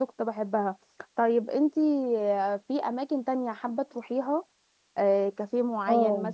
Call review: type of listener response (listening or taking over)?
listening